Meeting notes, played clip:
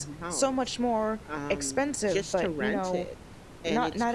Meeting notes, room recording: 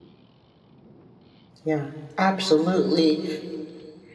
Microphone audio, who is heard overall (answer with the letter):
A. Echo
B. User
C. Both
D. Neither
B